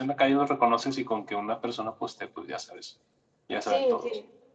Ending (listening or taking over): taking over